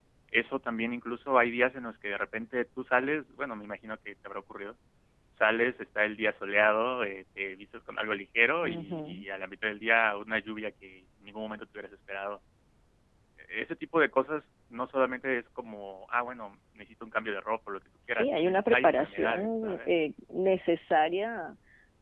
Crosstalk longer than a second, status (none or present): present